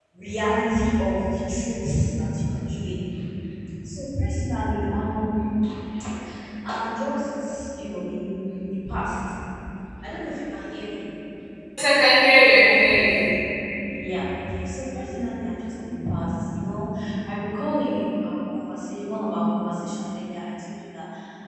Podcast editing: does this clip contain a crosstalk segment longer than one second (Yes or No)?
No